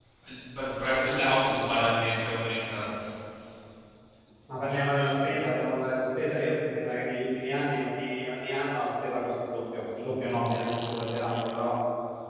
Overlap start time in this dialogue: none

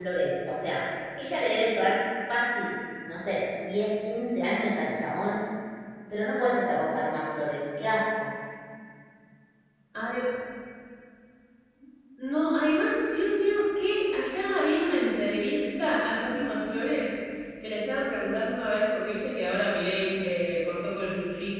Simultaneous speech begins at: none

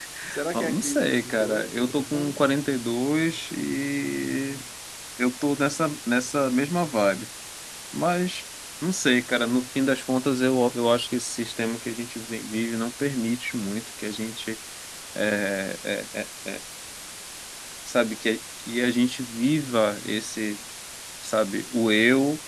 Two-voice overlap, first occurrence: 1 s

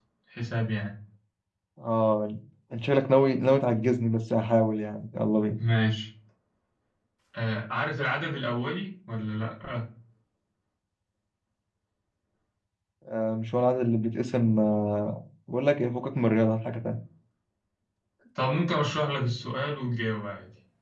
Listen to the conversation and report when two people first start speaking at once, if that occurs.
none

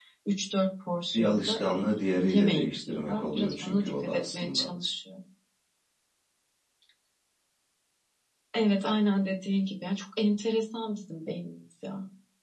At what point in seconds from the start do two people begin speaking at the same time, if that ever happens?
1 s

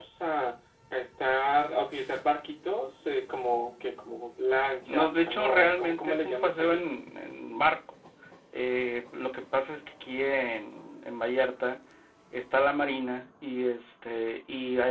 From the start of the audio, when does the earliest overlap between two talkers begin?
5 s

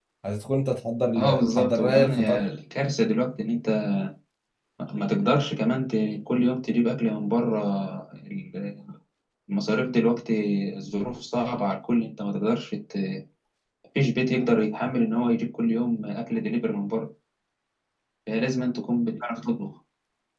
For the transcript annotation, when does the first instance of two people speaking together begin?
1 s

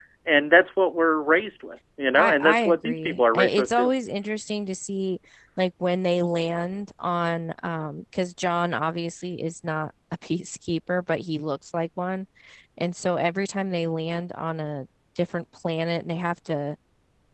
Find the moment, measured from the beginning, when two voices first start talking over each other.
2 s

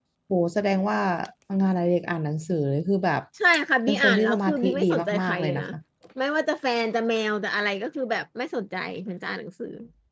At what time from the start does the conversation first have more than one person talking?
4 s

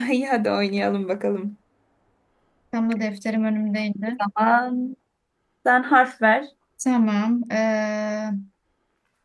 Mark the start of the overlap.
none

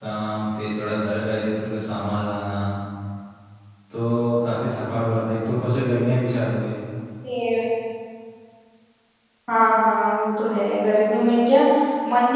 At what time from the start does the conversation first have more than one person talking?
none

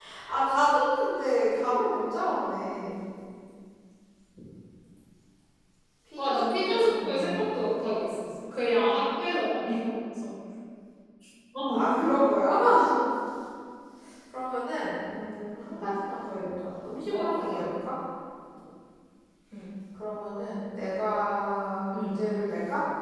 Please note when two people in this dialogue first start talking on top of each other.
6 s

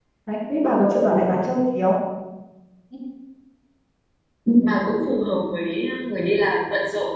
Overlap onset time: none

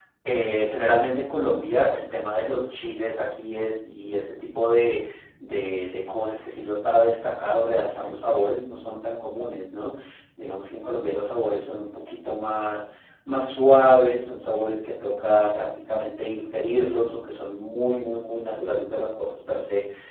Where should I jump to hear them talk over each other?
none

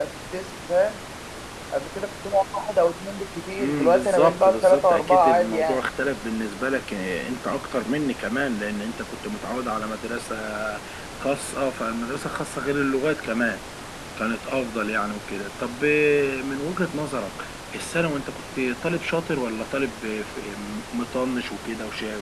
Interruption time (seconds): 4 s

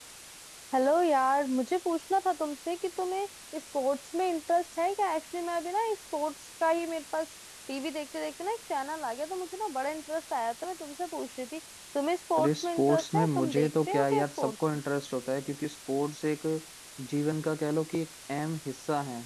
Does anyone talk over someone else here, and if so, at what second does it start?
12 s

